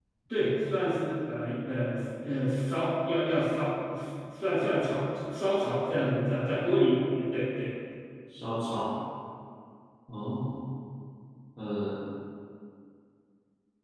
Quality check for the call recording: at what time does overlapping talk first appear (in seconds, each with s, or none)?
none